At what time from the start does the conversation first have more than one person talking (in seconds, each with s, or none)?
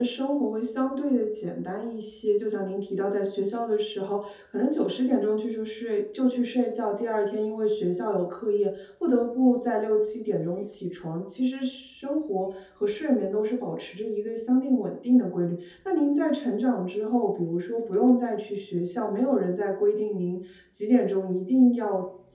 none